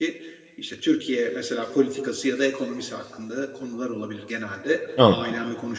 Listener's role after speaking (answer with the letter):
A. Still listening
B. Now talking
A